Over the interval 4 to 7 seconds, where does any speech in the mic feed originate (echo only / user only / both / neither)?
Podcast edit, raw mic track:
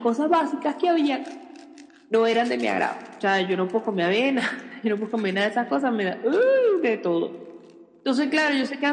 echo only